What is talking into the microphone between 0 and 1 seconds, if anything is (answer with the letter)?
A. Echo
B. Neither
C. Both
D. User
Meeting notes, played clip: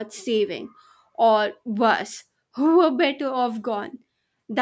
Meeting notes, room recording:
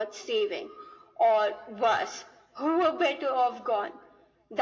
A